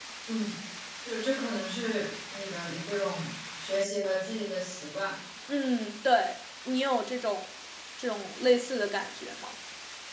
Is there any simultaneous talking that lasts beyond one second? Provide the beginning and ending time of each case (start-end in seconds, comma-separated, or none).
none